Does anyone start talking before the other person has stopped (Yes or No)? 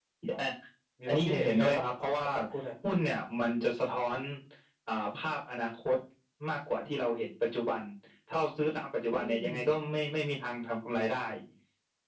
Yes